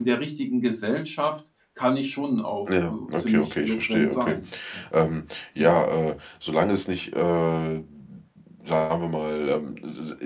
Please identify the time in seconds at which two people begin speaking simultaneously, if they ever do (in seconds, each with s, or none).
2.7 s